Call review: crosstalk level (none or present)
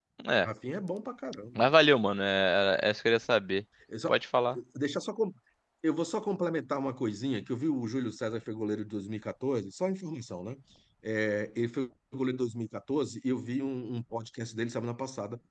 none